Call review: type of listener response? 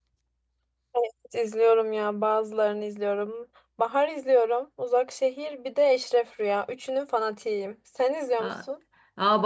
taking over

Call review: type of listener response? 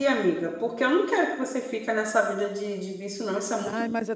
taking over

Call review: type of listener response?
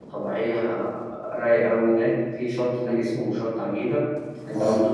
listening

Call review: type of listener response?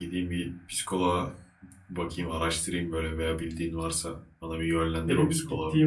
taking over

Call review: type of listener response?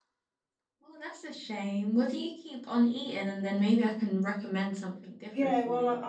taking over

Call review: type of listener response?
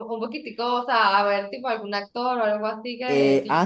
taking over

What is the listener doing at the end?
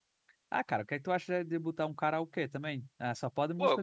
taking over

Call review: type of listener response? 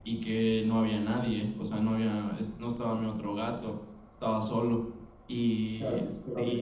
taking over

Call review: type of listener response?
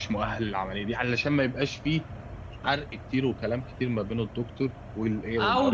taking over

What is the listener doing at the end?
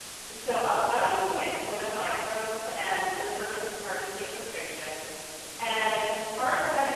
listening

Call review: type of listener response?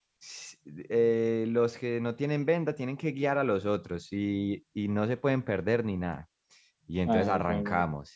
listening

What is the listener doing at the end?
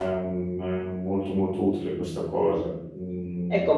taking over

